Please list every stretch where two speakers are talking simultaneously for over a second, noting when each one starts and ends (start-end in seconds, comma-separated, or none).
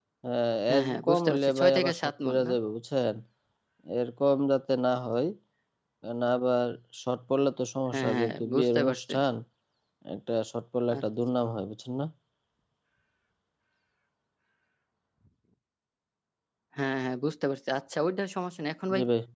0.7-2.5, 7.9-9.1